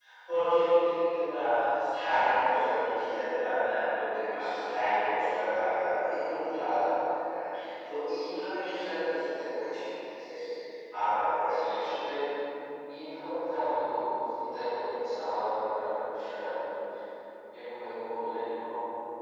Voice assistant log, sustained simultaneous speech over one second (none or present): none